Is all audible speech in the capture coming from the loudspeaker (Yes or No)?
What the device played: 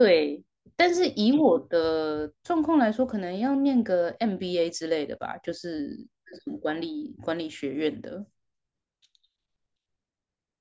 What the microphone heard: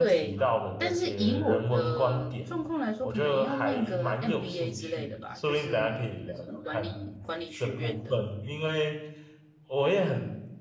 No